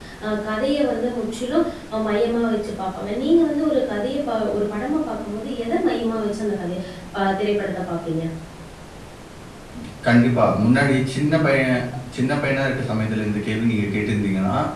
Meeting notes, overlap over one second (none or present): none